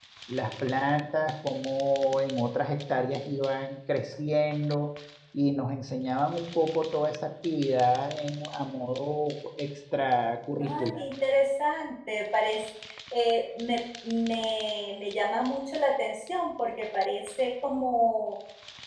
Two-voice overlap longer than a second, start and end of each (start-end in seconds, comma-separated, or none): none